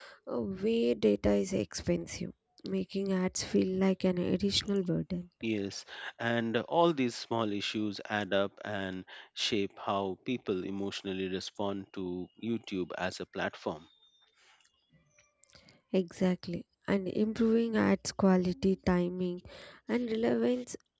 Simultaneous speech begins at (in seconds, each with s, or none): none